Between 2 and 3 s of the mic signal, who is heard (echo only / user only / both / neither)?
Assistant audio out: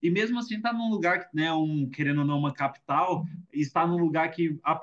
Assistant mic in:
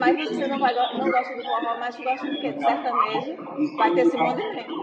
both